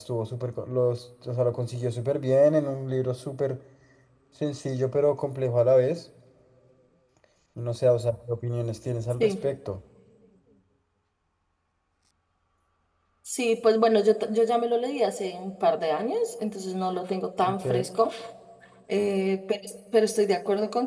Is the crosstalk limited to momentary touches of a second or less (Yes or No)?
Yes